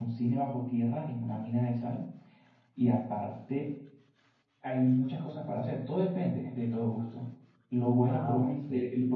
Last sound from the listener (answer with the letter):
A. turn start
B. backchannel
B